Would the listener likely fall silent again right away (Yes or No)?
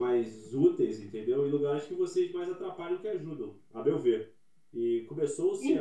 No